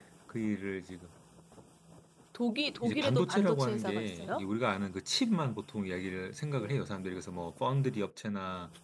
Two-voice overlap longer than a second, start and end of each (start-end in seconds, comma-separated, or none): 2.8-4.4